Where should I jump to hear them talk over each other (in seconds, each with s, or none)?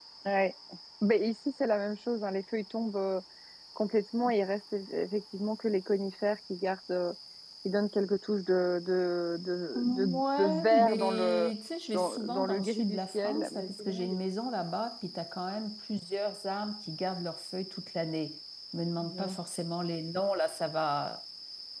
9.8 s